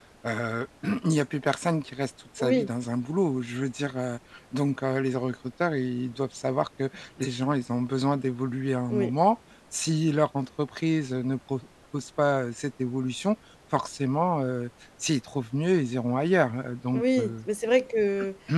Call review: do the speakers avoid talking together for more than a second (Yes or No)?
Yes